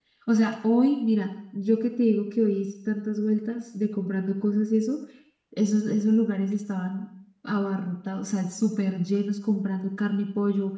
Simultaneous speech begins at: none

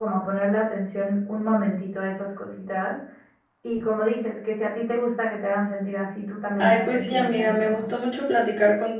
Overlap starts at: 6.6 s

